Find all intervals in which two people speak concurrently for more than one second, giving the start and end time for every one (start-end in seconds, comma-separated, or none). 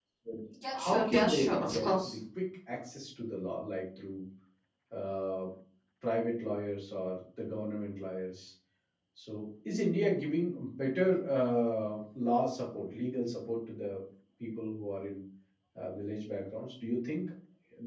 0.8-2.2